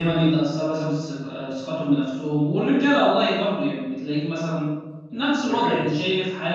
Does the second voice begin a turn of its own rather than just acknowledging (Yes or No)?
No